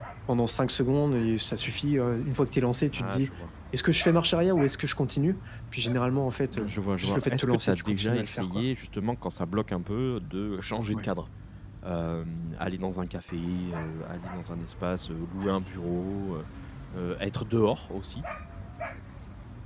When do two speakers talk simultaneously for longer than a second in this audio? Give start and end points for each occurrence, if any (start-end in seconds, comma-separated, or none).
6.5-8.6